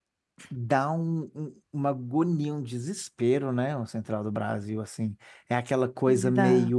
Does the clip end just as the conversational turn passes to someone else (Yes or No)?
No